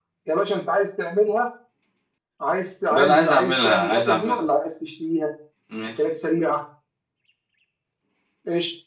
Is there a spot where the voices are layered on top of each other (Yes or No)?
Yes